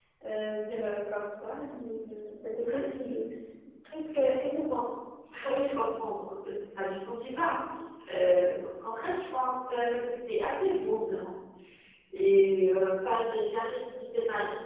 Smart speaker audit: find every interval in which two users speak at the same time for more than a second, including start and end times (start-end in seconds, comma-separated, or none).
none